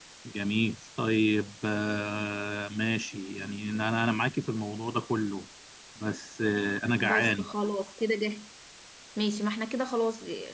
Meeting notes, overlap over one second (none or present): none